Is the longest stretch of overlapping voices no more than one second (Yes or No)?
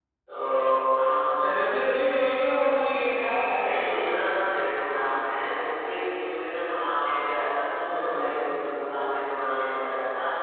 Yes